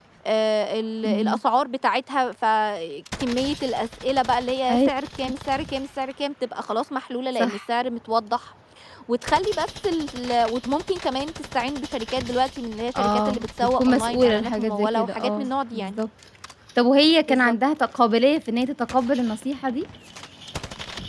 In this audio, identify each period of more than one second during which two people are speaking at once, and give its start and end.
12.9-16.0

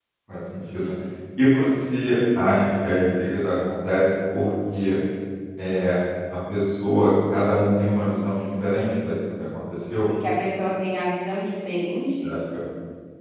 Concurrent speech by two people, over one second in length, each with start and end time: none

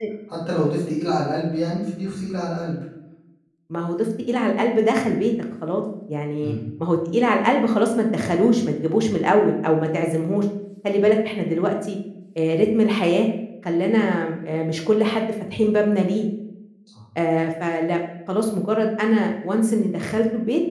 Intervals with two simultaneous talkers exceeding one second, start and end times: none

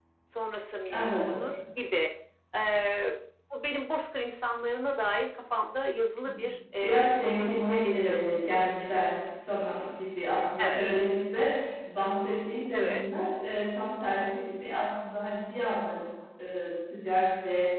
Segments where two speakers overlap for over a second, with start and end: 6.8-8.2

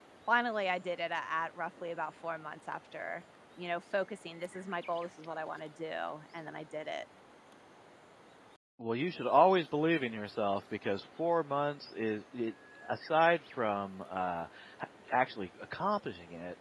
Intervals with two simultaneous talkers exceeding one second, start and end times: none

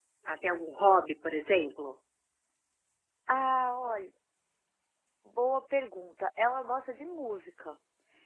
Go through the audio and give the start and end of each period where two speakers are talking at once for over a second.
none

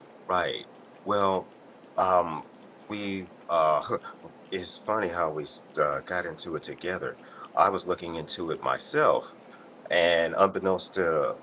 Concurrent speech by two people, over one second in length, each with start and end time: none

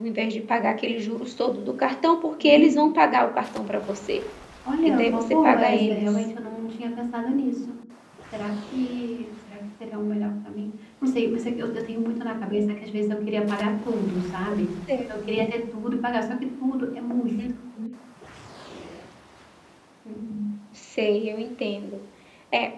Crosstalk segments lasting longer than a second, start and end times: 4.8-6.2

